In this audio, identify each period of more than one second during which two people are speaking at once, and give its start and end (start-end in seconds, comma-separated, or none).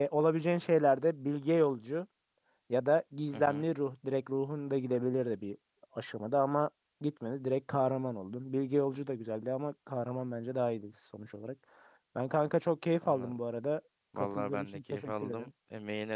14.2-15.5